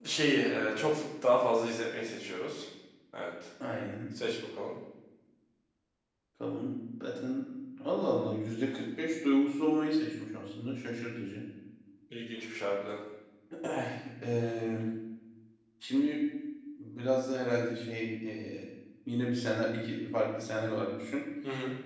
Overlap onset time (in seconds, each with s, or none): none